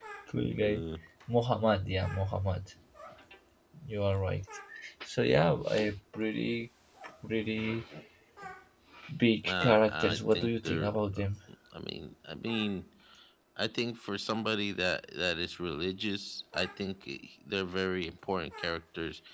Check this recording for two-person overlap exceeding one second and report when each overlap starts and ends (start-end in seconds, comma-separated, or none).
9.4-11.2